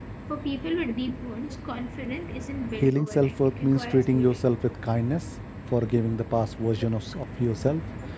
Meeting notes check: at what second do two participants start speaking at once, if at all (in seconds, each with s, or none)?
2.8 s